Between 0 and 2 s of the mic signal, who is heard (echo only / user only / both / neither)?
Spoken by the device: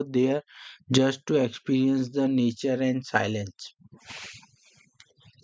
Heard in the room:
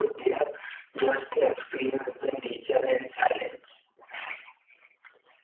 echo only